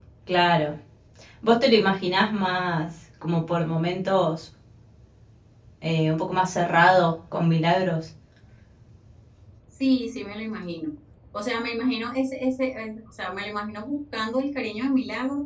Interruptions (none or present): none